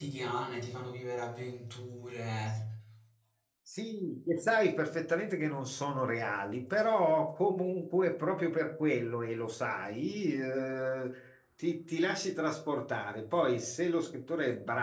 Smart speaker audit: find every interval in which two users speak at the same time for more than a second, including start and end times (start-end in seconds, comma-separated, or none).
none